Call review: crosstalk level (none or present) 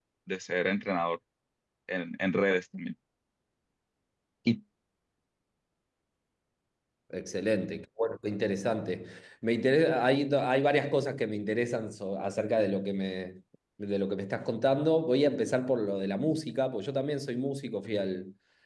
none